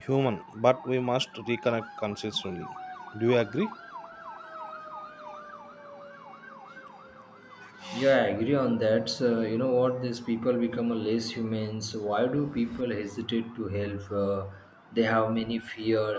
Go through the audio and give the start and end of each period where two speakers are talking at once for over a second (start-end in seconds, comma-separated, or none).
none